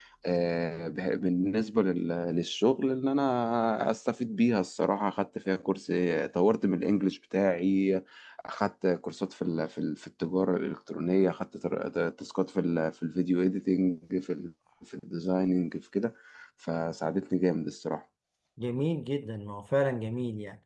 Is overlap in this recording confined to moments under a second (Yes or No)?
Yes